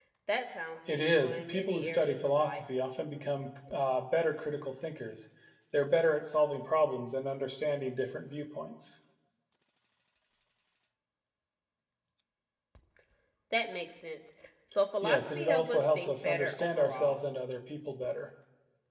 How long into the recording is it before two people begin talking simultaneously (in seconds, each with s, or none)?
0.9 s